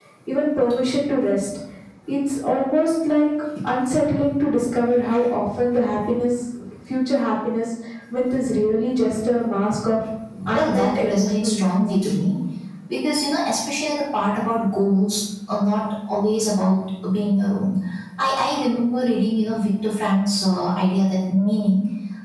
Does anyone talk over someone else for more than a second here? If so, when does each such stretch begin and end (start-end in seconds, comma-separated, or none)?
10.5-11.8